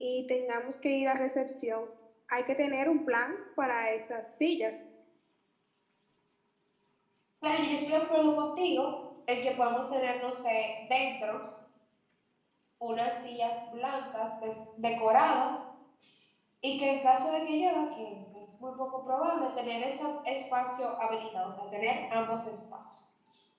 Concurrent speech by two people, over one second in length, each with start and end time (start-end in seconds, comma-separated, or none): none